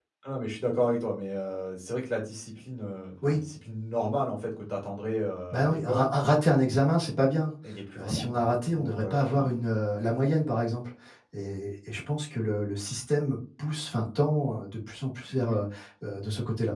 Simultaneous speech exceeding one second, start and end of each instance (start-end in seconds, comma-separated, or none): 8.0-9.3